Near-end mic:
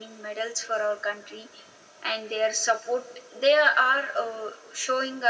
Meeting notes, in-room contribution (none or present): none